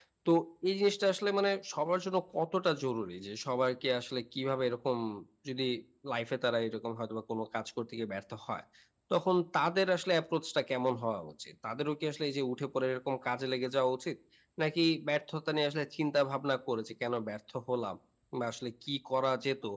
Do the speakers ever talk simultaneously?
No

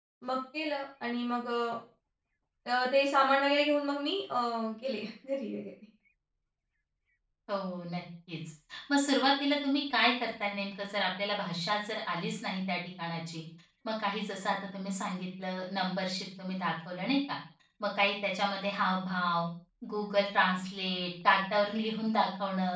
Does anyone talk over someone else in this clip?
No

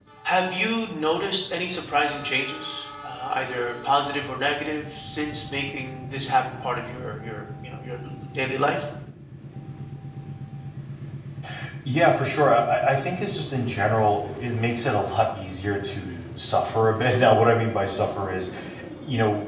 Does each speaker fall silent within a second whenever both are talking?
Yes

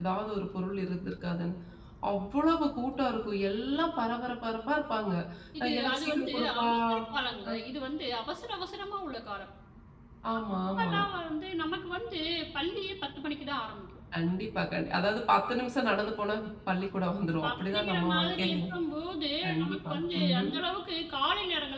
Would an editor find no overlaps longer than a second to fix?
No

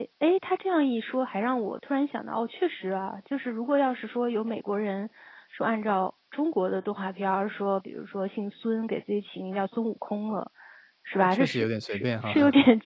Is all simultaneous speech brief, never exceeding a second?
No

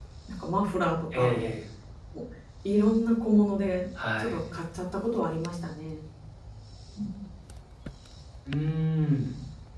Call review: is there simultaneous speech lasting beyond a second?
No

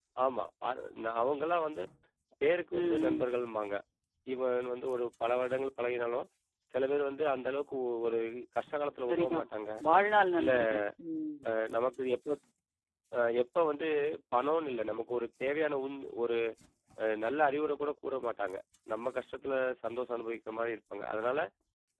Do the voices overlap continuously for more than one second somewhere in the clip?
No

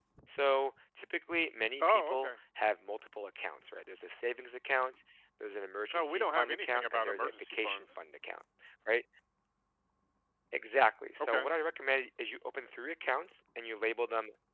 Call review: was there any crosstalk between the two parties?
Yes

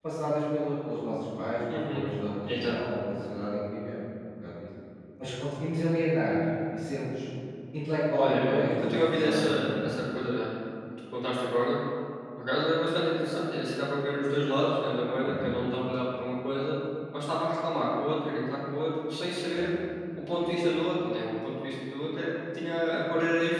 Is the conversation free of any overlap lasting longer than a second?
No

